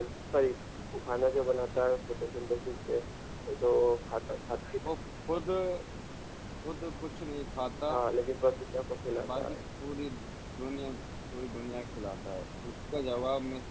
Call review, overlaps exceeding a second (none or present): none